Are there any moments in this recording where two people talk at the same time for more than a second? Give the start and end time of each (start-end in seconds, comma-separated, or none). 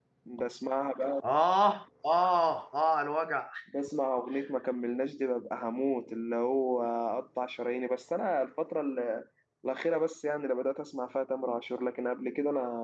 none